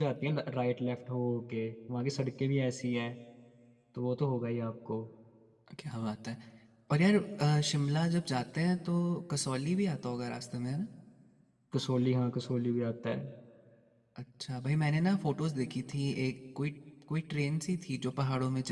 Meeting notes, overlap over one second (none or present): none